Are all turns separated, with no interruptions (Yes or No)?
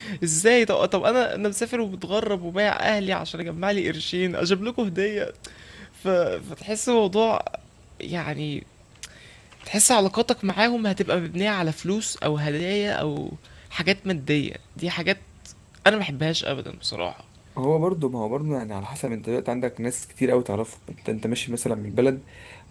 Yes